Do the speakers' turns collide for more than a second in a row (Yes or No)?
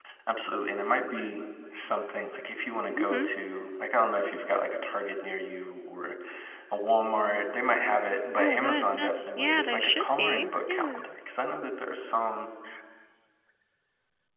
Yes